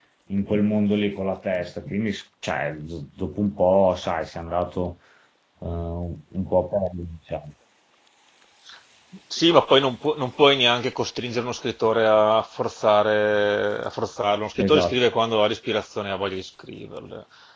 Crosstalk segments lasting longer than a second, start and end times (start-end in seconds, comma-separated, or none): none